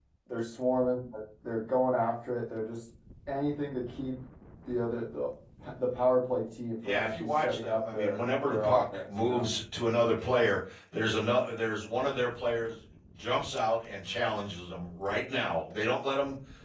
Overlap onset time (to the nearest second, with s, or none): 7 s